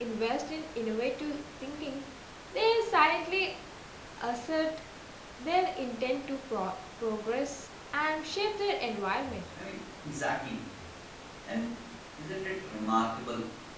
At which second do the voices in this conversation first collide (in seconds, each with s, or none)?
none